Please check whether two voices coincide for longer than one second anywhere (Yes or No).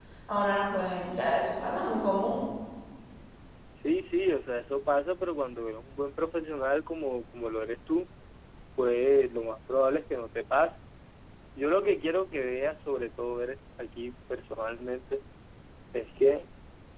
No